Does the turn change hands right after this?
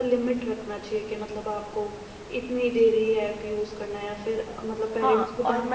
Yes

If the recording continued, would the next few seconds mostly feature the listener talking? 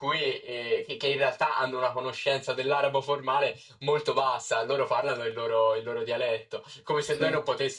No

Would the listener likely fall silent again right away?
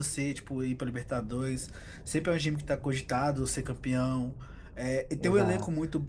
Yes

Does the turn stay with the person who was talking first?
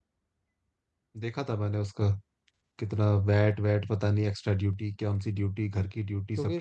No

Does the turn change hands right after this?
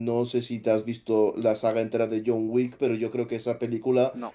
No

